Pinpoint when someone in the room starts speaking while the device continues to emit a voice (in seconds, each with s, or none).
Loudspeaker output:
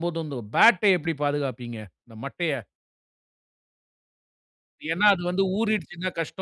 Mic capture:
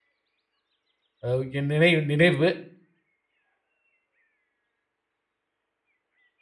1.3 s